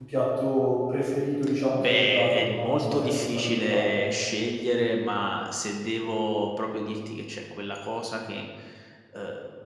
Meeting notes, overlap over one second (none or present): present